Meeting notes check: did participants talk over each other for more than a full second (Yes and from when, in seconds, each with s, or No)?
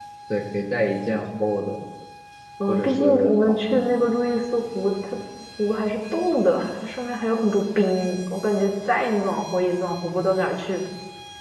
Yes, from 2.7 s